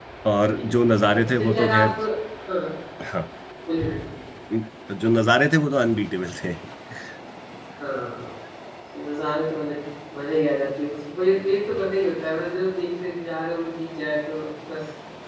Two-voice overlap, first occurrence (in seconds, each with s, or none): 0.5 s